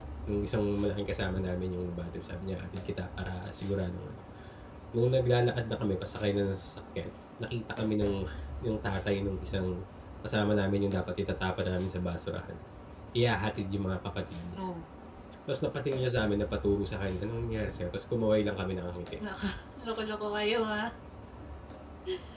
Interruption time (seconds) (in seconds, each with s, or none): none